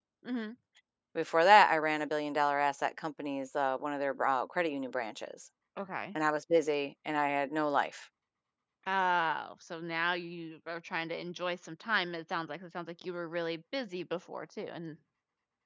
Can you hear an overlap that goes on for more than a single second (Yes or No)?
No